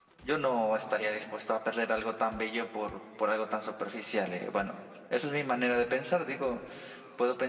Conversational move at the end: listening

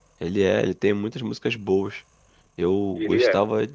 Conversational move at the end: listening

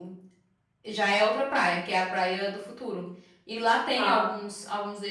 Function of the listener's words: listening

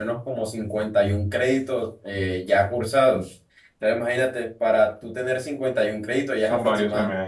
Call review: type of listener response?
taking over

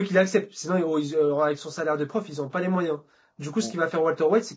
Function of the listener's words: listening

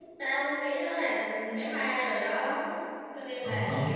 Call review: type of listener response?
taking over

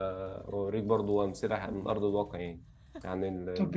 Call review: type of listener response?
taking over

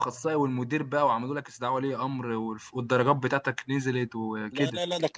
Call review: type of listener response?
taking over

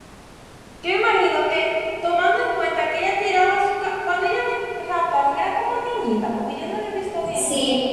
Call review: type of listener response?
taking over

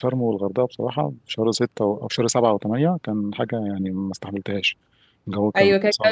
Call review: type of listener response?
taking over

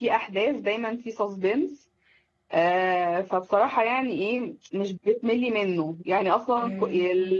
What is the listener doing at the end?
listening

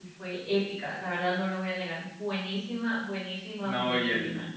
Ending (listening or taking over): taking over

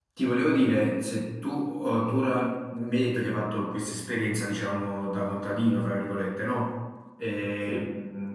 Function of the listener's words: listening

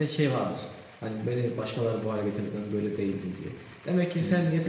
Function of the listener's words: listening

